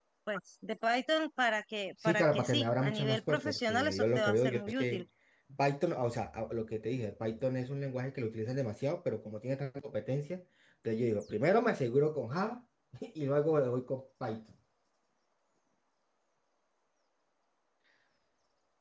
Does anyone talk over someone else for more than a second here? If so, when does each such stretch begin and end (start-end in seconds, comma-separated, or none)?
2.0-5.0